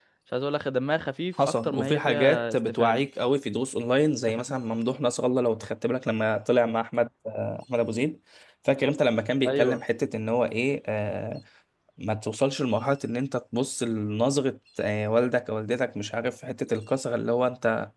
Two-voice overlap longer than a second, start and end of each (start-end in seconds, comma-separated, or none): 1.4-3.0